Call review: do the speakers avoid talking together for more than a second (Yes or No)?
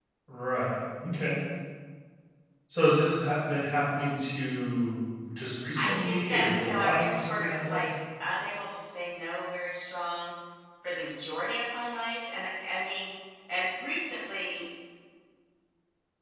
No